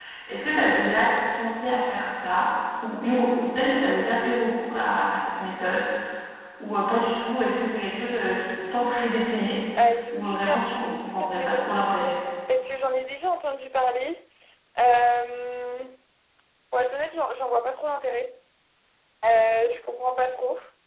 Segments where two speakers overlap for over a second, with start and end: 10.1-12.1

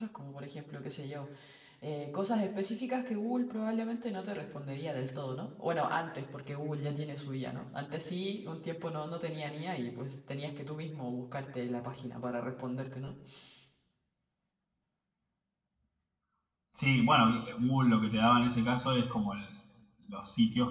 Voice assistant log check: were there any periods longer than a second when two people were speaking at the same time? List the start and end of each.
none

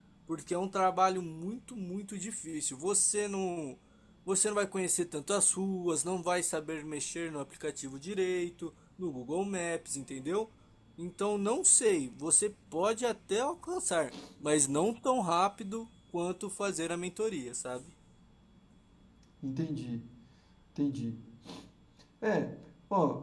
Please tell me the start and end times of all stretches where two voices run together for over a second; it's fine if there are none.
none

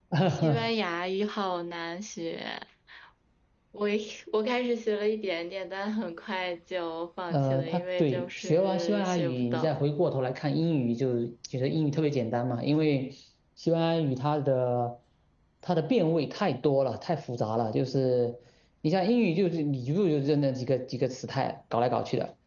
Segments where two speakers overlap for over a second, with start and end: 7.3-9.8

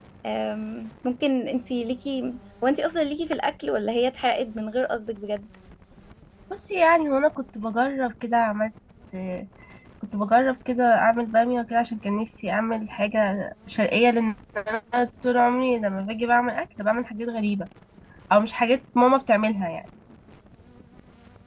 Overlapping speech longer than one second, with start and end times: none

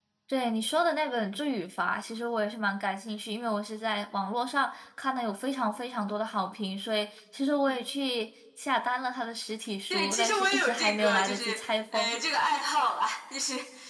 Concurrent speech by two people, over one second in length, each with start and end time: 9.9-12.2

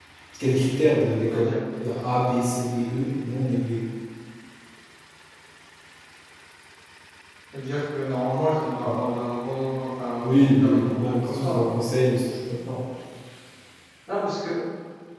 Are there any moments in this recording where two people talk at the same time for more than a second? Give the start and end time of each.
10.2-11.6

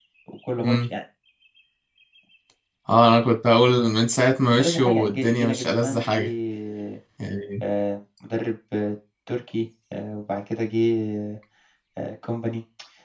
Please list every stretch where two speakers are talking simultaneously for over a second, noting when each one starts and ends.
4.4-6.3

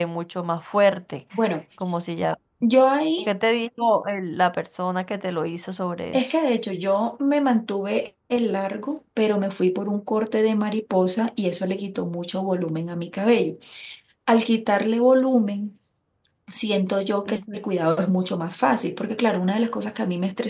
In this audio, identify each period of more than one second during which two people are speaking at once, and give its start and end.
none

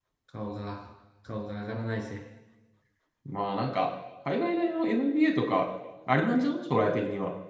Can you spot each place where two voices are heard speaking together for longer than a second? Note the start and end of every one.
none

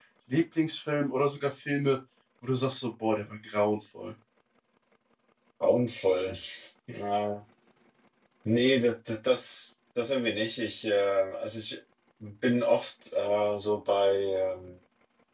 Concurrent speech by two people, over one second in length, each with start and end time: none

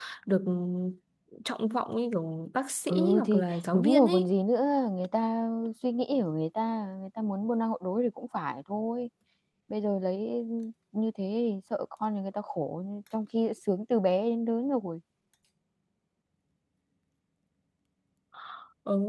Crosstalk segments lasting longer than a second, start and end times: 2.9-4.3

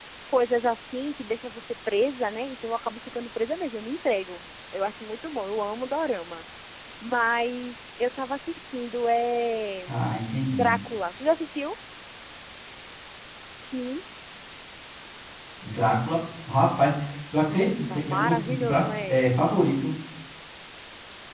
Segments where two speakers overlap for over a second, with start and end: 17.5-19.2

